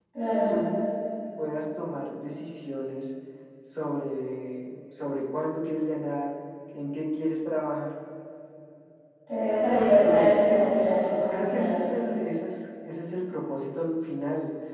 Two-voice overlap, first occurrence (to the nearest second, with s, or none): 10 s